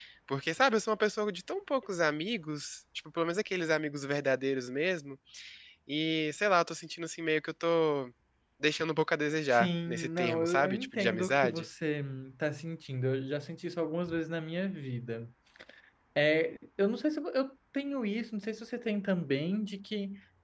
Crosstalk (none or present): present